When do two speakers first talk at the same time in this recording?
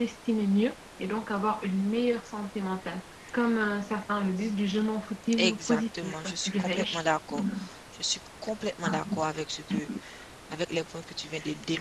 5.4 s

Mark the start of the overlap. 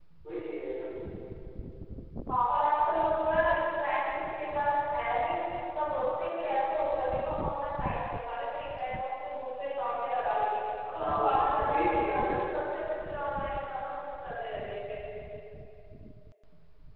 10.8 s

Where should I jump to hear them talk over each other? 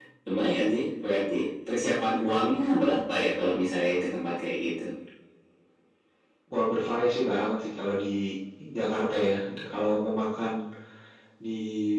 none

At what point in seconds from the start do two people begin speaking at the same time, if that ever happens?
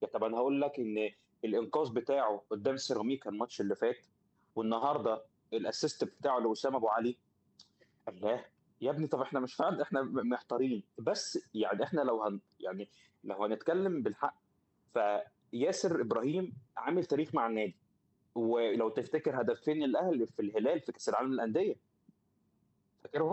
none

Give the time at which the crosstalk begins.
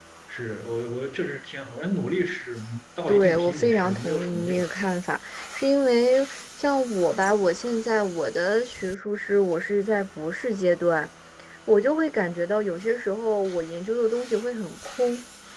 3.1 s

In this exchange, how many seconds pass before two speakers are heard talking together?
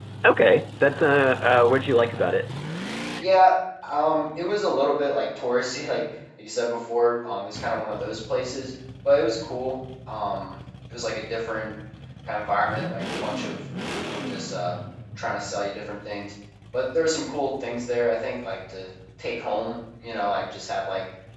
none

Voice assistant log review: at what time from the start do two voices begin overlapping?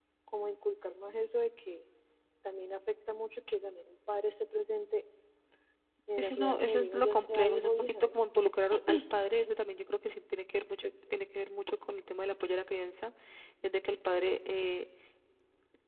6.2 s

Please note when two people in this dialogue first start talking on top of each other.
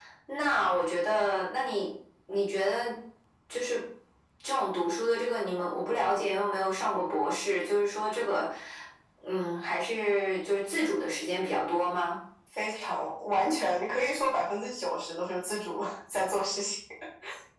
none

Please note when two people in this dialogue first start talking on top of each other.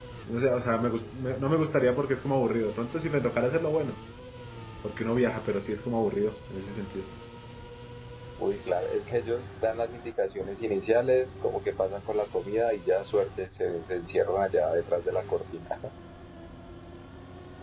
none

